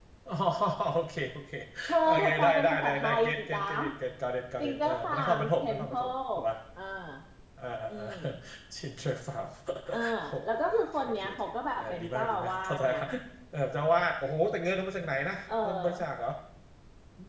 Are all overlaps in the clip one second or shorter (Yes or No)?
No